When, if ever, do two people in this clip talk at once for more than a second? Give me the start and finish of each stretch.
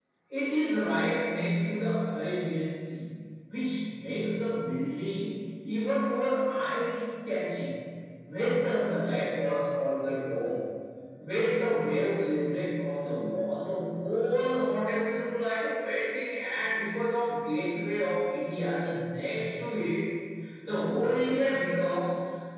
none

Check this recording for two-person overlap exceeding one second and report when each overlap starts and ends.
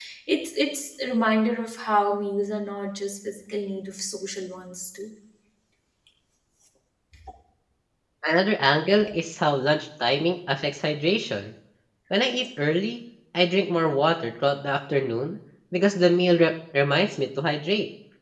none

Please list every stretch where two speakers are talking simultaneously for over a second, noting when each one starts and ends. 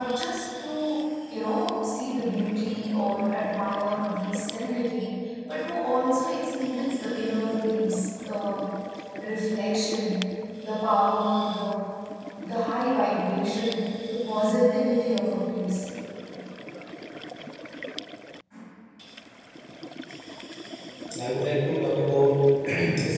none

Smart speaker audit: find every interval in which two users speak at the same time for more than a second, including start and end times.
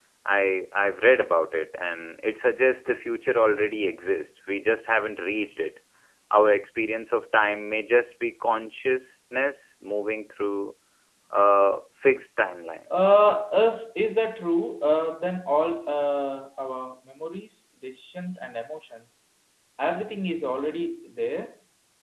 none

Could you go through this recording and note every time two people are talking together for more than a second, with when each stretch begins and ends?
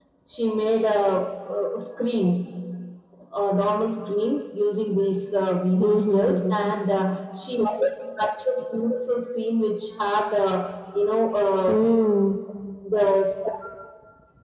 5.7-7.2

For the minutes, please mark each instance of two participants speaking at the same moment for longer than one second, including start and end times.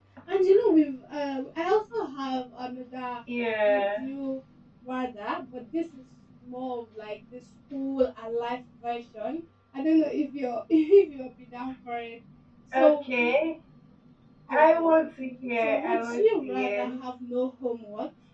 15.6-16.9

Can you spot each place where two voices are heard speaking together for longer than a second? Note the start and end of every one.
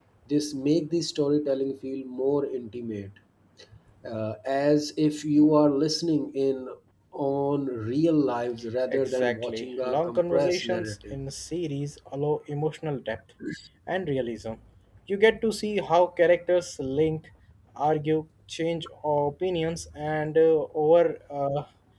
8.9-11.2

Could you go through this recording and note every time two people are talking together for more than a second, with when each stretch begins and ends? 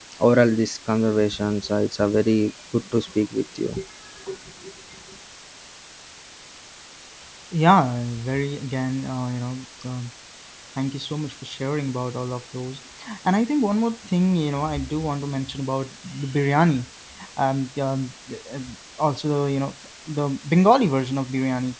none

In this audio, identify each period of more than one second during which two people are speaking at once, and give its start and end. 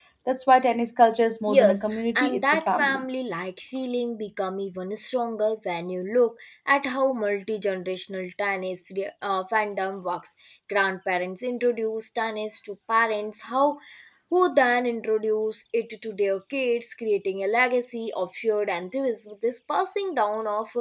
1.5-3.0

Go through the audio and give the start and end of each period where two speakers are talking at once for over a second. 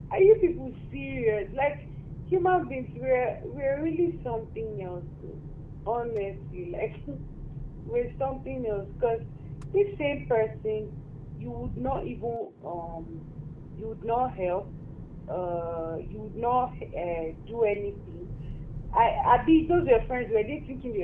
none

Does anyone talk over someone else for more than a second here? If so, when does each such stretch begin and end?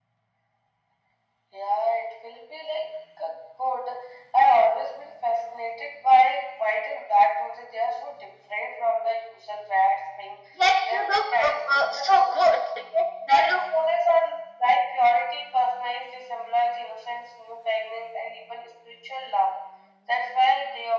10.8-12.6

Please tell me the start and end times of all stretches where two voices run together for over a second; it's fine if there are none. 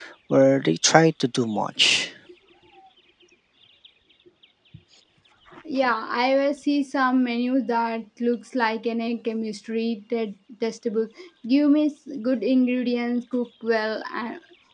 none

